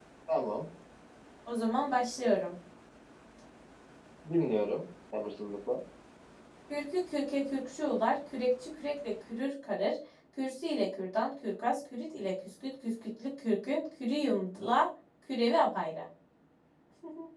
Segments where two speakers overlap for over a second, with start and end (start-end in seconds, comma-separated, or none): none